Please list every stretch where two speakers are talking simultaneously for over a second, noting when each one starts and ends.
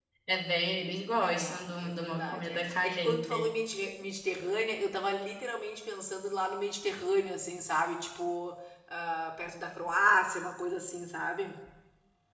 1.2-3.5

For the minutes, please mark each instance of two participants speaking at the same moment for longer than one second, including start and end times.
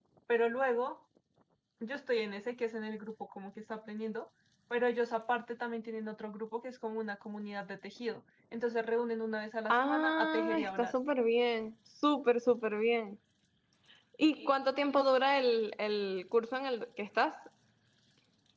9.7-10.9

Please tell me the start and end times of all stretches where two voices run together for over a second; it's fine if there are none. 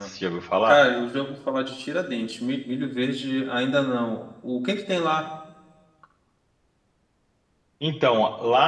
none

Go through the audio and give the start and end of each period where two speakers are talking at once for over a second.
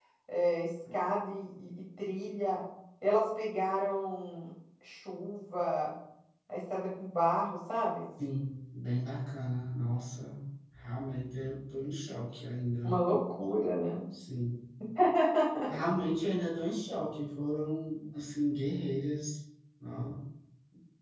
none

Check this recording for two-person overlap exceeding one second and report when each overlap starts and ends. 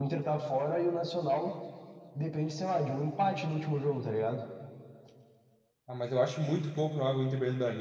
none

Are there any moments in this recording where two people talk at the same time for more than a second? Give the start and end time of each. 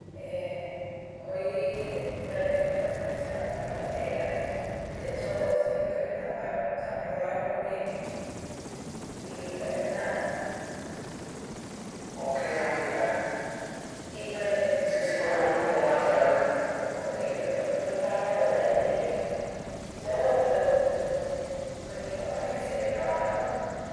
14.9-16.3

